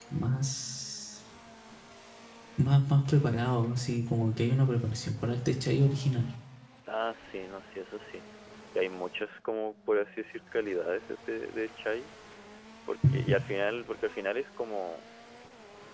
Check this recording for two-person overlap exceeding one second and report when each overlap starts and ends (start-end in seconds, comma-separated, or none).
none